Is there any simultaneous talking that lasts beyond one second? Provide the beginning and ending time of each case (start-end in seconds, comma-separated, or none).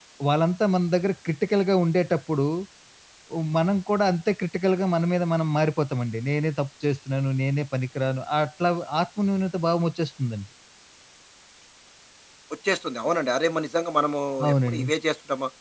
none